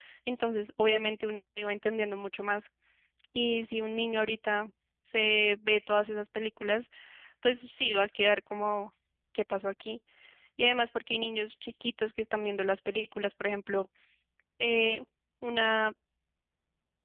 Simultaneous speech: No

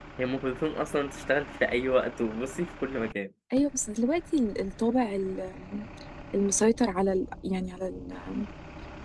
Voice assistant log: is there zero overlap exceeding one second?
Yes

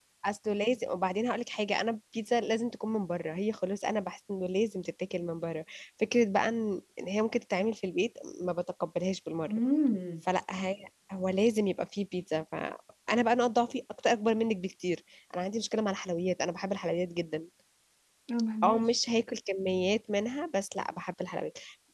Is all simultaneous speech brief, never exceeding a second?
Yes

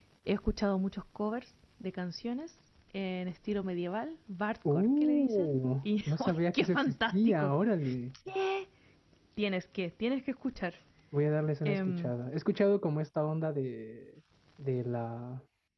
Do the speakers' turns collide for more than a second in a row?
Yes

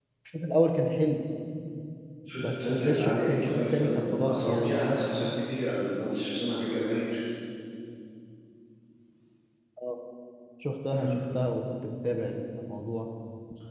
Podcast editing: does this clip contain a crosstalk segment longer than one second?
Yes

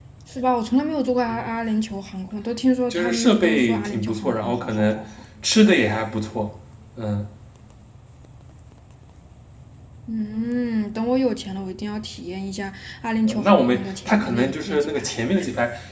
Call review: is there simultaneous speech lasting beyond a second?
Yes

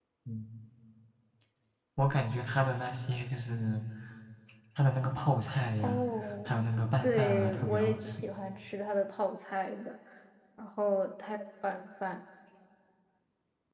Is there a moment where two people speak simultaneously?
Yes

